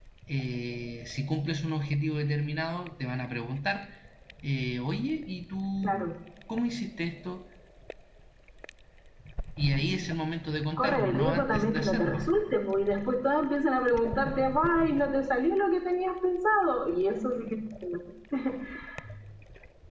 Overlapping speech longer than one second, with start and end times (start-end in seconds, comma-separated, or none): 10.8-12.3